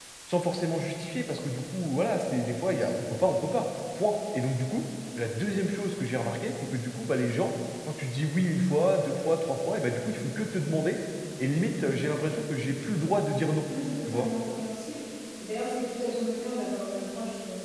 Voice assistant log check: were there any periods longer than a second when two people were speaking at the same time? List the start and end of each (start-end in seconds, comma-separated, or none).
none